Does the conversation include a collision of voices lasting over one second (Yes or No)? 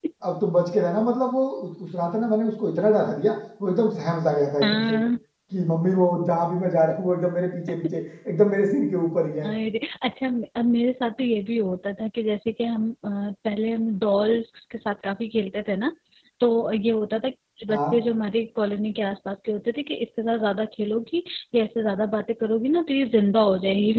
No